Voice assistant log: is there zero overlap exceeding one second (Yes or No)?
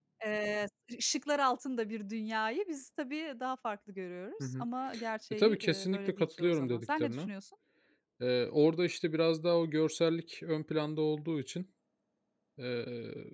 No